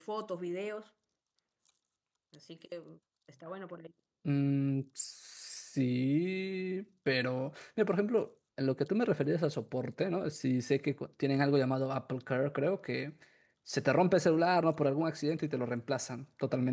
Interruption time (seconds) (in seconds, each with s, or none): none